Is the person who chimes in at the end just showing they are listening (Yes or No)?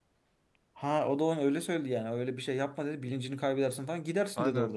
No